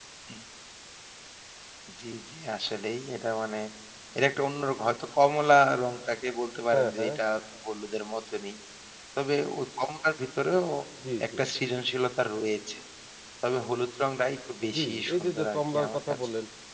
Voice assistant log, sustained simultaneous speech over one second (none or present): present